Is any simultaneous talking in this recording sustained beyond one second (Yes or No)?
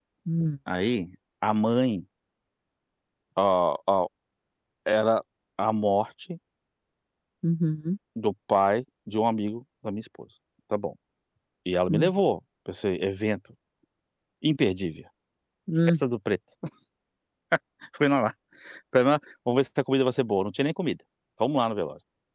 No